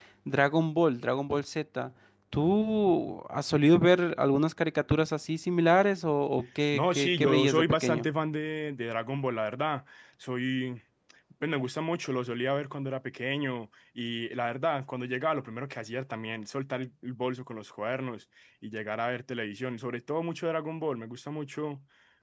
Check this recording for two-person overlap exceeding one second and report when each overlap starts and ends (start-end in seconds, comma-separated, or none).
6.7-8.1